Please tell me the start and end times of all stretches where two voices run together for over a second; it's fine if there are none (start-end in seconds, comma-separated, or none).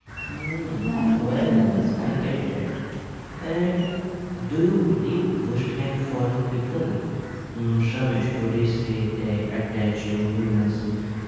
0.8-2.2